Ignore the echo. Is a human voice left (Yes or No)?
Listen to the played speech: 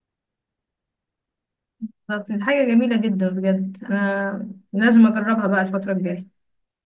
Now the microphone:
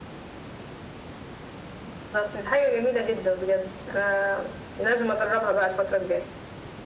No